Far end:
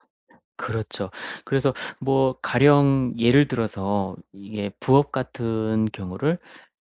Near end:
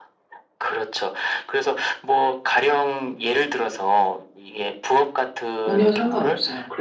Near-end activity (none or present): present